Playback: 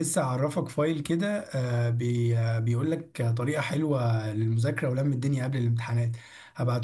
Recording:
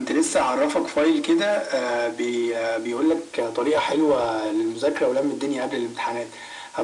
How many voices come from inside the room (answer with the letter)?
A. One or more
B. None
B